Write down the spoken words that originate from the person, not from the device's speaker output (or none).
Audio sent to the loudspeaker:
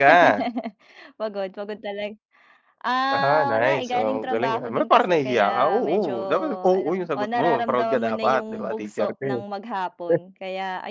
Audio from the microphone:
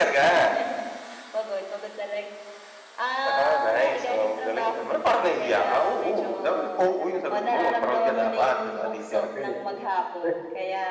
none